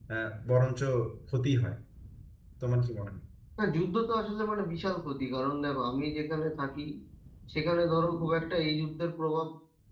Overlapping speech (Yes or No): No